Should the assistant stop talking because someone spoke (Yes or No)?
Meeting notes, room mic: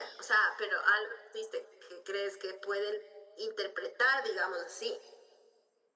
No